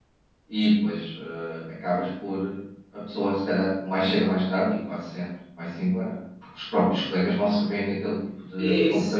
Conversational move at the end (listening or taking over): taking over